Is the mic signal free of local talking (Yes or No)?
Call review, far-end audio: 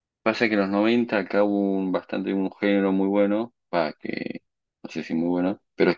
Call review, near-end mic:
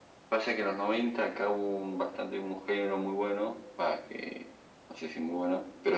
Yes